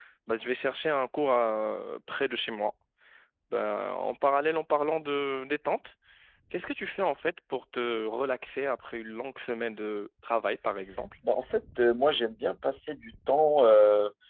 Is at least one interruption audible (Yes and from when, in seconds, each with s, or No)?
No